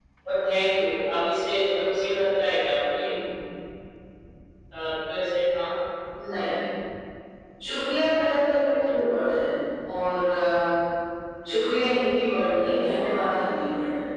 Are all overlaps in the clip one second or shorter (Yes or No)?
Yes